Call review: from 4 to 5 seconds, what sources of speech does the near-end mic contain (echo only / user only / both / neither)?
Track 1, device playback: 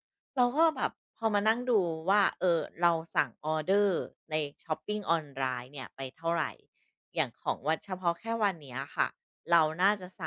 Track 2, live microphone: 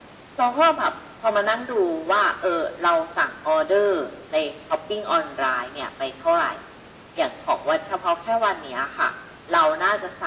echo only